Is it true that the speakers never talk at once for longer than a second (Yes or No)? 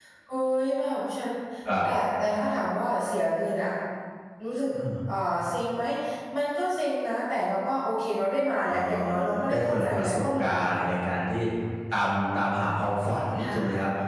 No